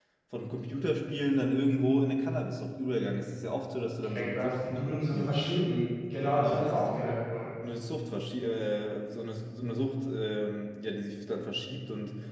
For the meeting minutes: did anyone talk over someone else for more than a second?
Yes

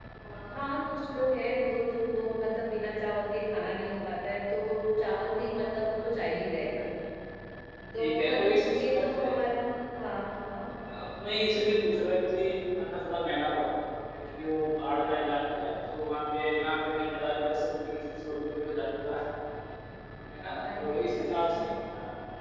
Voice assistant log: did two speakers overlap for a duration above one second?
Yes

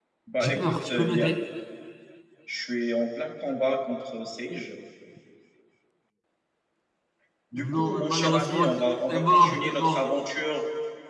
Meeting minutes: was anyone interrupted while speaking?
Yes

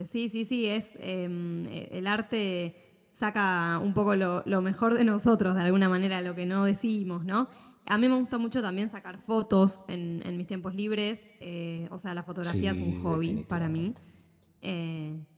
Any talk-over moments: Yes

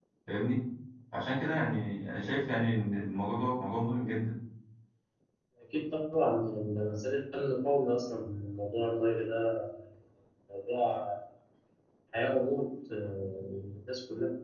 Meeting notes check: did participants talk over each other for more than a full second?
No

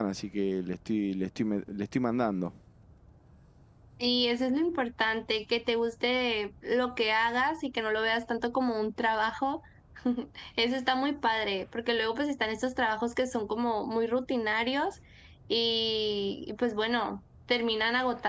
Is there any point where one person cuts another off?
No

